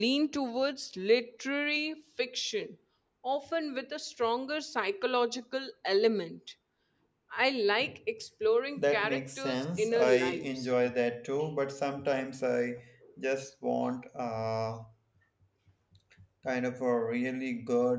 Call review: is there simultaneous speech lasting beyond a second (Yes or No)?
Yes